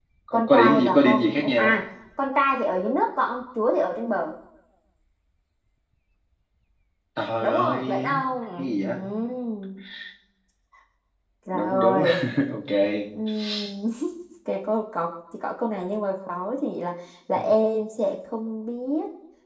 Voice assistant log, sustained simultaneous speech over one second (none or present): present